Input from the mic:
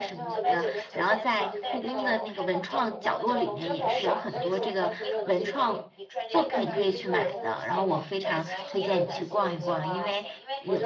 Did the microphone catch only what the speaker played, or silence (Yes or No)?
No